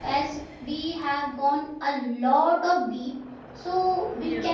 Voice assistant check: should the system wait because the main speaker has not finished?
Yes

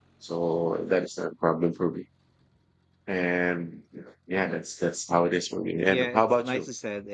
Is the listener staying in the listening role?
No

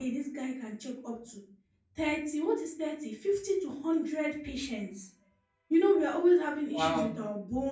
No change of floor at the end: Yes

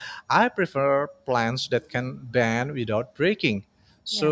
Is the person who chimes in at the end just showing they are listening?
Yes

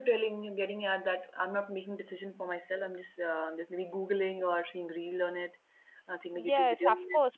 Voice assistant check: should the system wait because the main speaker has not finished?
No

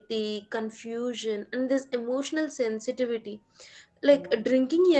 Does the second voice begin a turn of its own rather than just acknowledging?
No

